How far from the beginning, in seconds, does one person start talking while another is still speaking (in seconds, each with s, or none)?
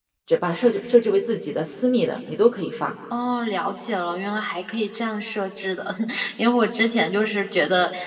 none